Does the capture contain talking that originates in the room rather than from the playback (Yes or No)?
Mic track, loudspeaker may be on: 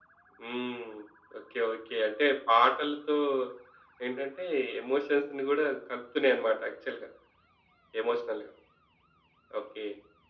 No